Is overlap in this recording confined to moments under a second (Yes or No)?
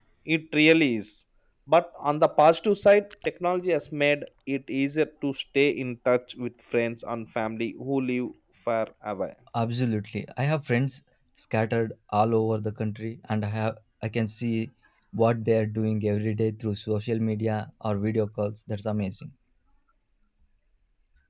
Yes